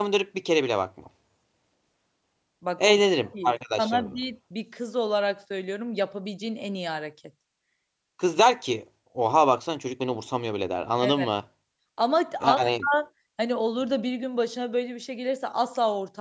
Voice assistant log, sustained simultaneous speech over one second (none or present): present